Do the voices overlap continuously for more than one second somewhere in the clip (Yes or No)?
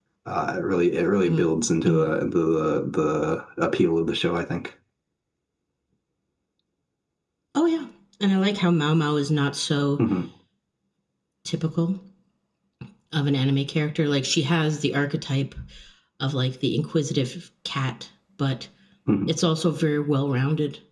No